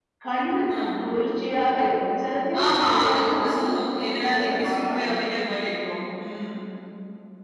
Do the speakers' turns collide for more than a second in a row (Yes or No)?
Yes